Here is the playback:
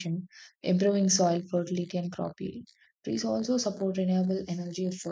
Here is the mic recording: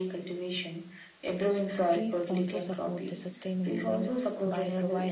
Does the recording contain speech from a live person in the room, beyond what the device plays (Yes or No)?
Yes